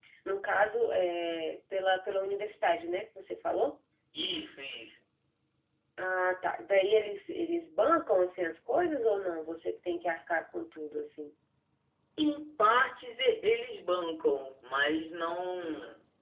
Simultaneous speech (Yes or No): No